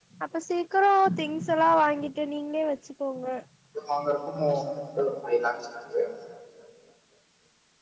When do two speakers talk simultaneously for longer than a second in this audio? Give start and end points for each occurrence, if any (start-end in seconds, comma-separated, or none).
none